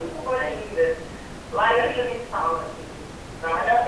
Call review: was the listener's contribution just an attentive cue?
No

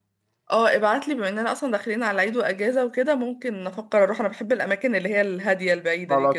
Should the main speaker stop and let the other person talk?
Yes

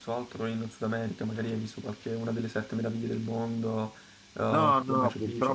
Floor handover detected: Yes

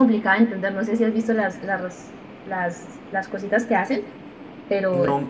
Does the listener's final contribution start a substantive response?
Yes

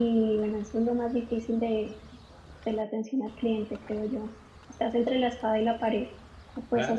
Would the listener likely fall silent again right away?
No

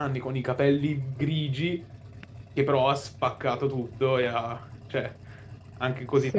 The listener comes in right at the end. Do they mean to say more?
Yes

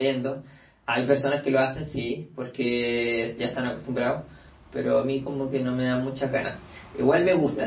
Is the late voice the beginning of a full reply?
No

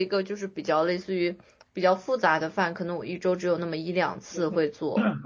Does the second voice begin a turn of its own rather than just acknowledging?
Yes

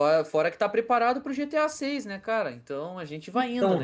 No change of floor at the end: No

